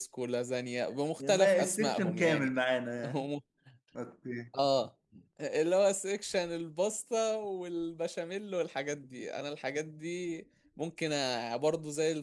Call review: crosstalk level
present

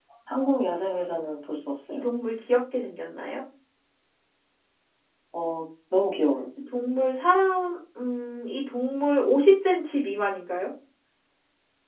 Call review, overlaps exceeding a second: none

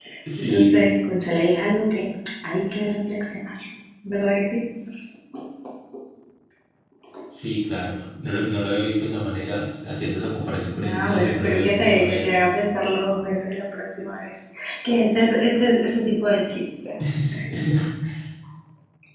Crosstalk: present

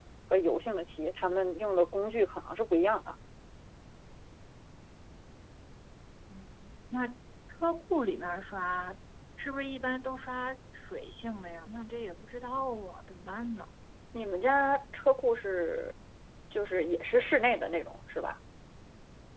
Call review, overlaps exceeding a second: none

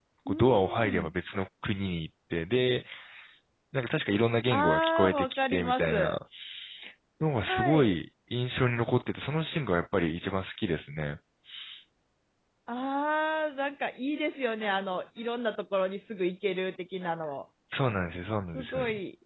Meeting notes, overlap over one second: present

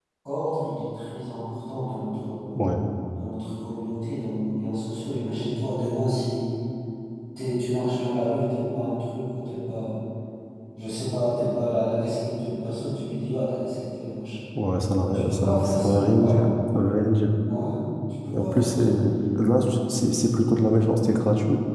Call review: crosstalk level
present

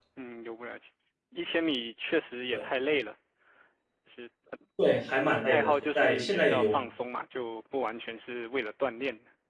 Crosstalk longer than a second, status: present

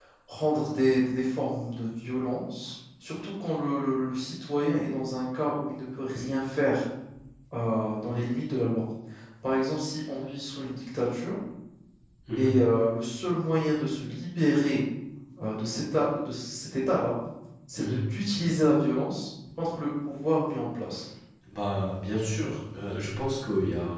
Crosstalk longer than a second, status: none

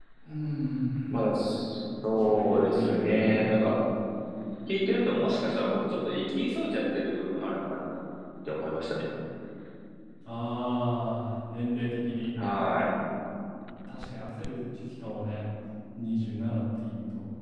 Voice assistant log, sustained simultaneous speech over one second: present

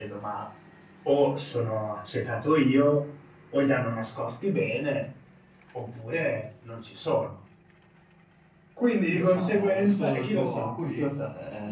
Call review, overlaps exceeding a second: present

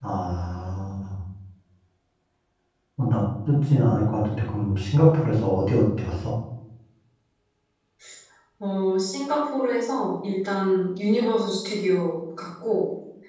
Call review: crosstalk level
none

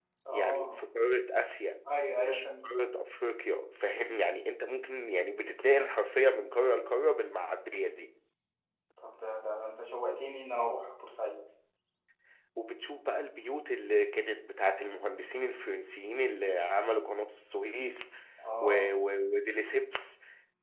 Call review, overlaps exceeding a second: none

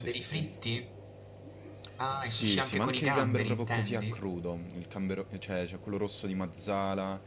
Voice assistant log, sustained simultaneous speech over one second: present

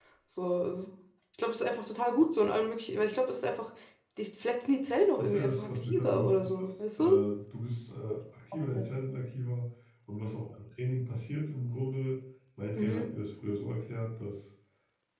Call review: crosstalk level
present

